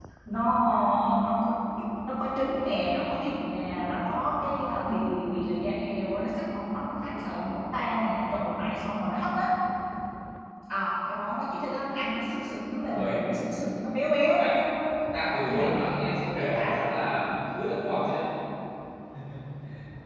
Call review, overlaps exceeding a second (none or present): present